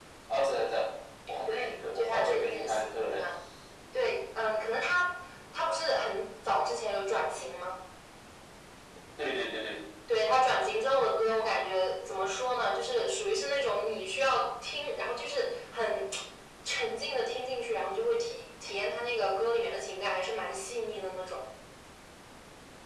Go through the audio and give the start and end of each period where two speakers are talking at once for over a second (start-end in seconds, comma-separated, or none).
1.5-3.2